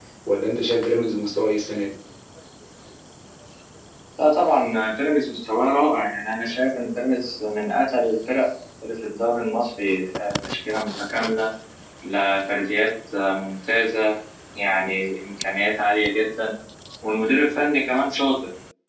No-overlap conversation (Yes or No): Yes